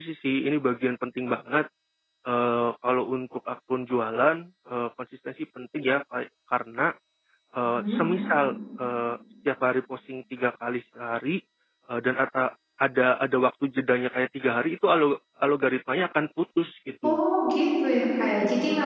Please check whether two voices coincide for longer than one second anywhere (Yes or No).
No